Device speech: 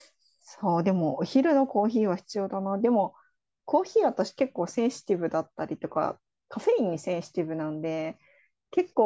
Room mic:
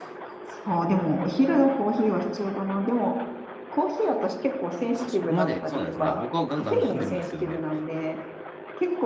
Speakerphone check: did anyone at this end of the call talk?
Yes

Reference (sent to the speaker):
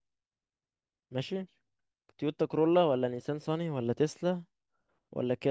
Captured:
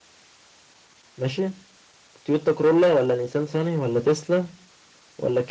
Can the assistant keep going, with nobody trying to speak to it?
Yes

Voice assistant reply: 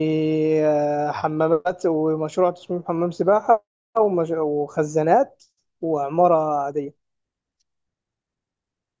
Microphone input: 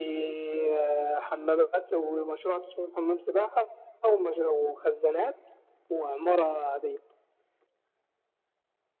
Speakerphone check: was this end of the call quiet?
Yes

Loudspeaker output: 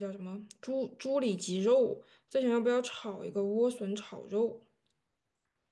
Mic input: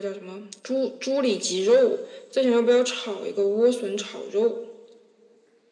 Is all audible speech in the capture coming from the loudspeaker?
Yes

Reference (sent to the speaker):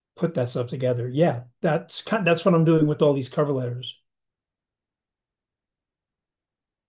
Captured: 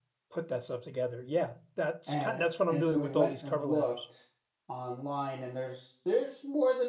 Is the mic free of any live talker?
No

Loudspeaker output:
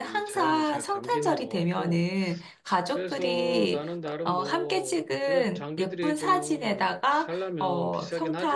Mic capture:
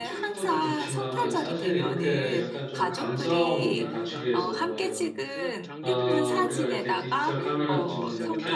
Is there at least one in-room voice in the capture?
Yes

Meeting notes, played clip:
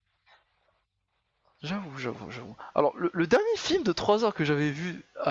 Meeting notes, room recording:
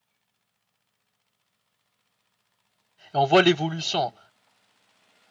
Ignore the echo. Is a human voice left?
Yes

